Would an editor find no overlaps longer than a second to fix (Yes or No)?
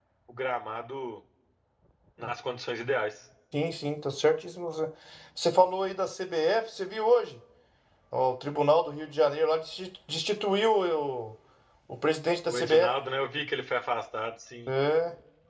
Yes